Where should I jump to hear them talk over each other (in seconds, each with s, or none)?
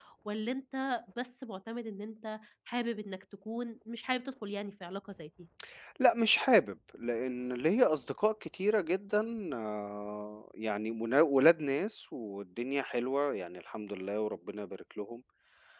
none